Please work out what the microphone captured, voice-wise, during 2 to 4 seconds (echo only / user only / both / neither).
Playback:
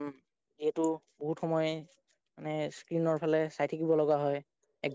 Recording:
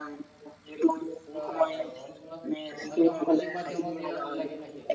both